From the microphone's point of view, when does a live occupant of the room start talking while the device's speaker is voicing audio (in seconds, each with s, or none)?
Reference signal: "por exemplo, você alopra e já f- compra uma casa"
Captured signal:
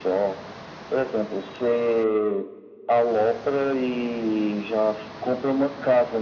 none